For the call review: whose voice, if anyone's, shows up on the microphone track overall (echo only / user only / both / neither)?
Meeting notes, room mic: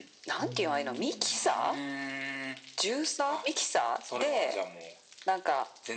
both